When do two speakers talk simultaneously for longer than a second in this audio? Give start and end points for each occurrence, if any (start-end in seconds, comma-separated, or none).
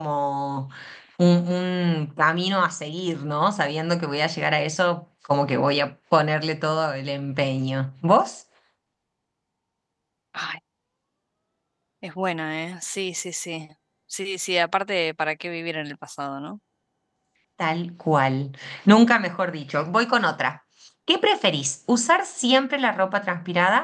none